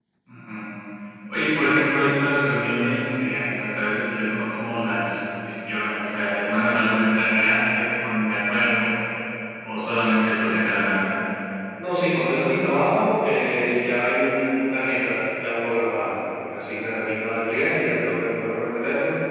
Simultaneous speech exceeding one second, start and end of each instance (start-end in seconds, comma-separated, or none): none